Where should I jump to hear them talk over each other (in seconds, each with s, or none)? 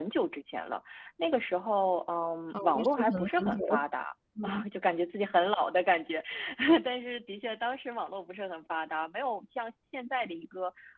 2.5 s